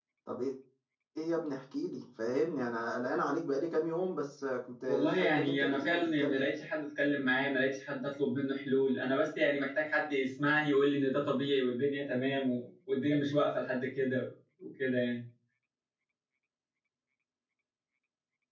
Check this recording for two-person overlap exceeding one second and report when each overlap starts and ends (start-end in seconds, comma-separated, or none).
4.9-6.5